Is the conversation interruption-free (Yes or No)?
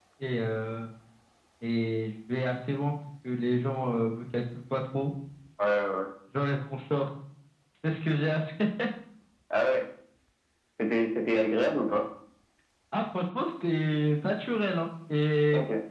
Yes